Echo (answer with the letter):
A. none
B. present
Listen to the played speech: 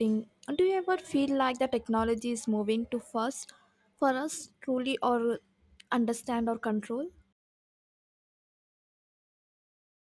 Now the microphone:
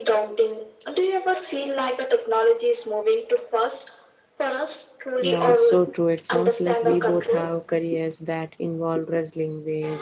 B